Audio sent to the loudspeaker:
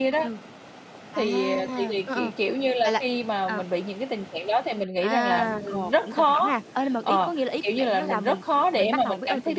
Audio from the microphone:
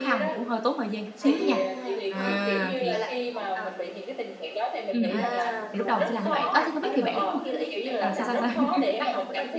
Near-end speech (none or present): present